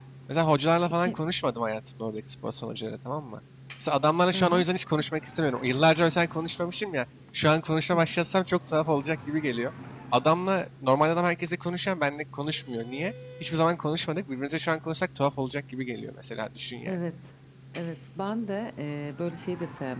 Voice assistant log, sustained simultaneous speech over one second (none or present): none